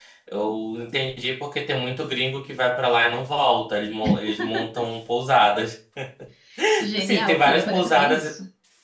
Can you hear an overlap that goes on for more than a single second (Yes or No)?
Yes